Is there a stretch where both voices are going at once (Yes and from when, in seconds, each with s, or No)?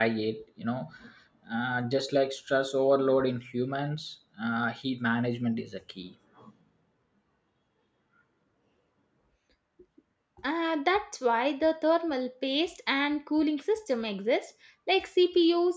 No